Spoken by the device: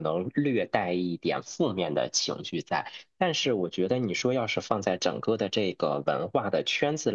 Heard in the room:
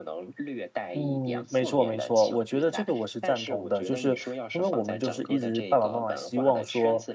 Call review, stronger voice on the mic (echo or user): user